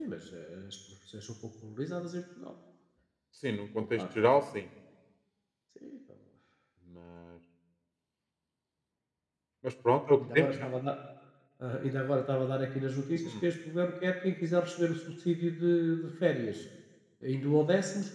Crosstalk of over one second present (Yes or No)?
No